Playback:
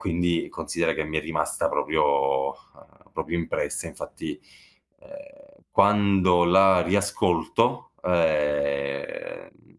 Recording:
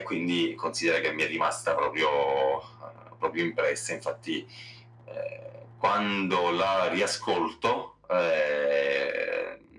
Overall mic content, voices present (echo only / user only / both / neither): echo only